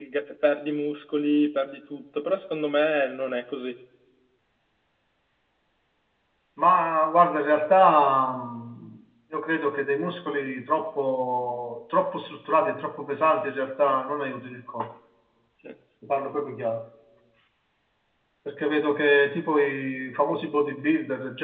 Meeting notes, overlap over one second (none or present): none